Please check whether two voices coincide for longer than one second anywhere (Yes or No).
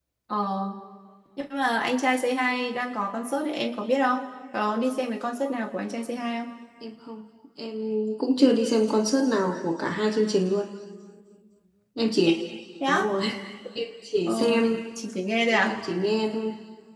No